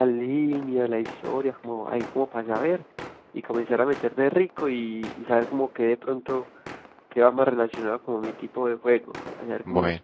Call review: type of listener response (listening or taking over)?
taking over